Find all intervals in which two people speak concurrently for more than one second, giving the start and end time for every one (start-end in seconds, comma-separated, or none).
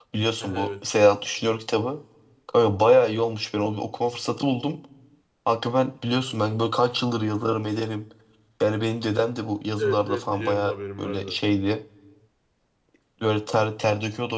9.8-11.4